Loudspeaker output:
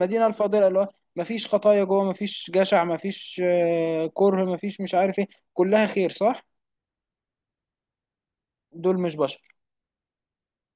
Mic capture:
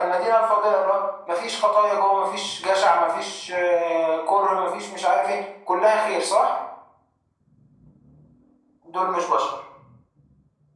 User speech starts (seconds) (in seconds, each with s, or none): none